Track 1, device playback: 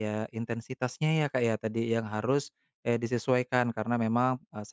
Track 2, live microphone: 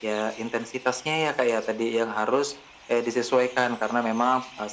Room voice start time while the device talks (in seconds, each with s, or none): none